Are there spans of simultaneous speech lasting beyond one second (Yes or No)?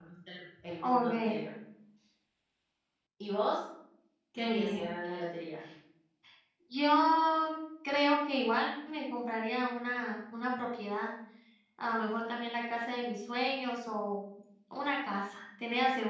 No